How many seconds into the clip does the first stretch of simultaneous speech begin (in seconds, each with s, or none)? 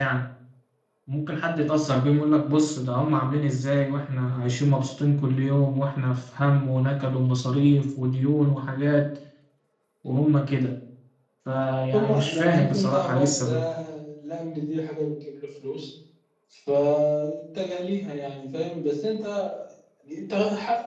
11.9 s